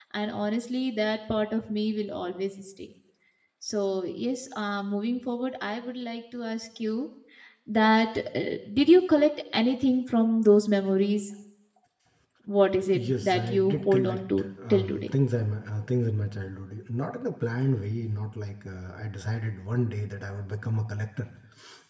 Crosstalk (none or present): present